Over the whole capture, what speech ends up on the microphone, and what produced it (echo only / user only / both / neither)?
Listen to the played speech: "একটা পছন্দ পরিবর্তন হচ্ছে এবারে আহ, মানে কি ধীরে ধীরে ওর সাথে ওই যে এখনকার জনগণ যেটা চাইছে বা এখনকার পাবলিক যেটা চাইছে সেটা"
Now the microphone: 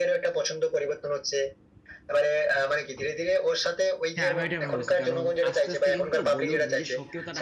both